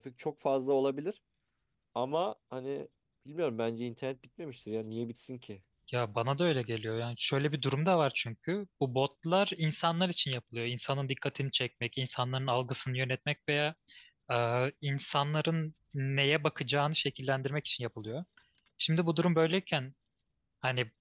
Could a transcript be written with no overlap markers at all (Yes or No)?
Yes